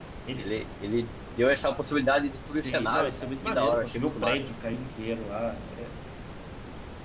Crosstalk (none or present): present